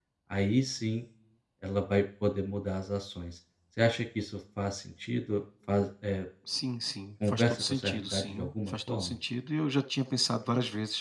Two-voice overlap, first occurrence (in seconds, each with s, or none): 7.2 s